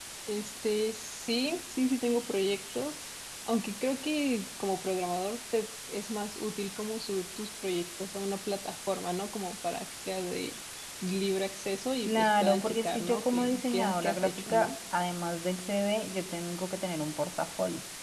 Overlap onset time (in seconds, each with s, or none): 12.1 s